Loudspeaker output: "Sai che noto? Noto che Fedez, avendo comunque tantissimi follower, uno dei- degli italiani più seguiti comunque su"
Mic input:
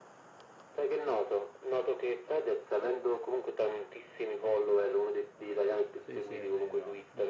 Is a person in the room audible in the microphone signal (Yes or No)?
Yes